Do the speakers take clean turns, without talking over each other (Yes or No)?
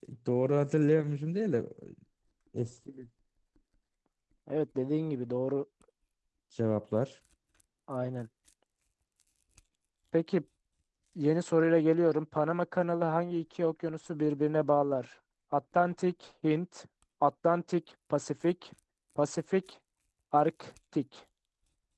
Yes